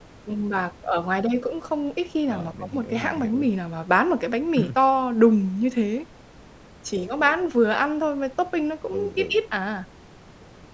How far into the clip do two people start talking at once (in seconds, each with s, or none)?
2.3 s